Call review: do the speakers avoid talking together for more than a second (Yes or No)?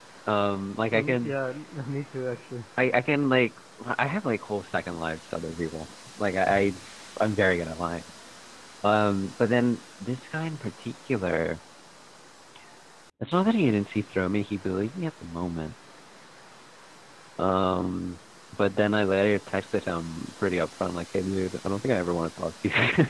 Yes